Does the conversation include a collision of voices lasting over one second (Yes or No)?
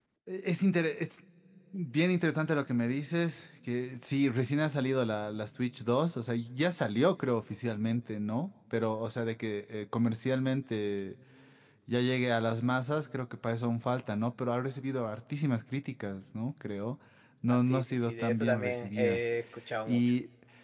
Yes